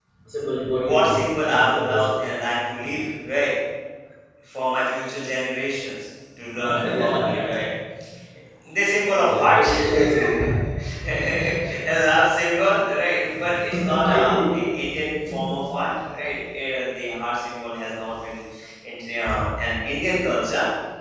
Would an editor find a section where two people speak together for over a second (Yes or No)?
Yes